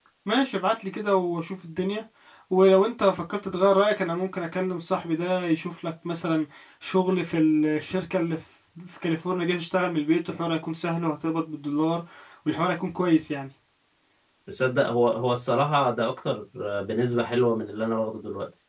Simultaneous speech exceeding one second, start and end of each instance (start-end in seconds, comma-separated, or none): none